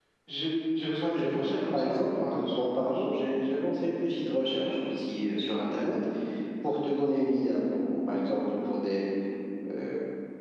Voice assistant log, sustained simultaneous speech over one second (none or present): present